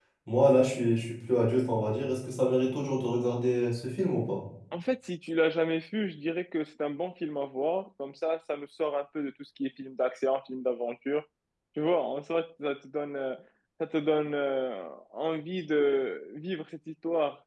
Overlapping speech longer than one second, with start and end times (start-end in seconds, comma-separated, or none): none